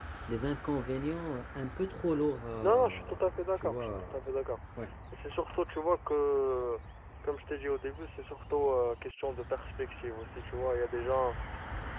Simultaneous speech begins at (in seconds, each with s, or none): 2.6 s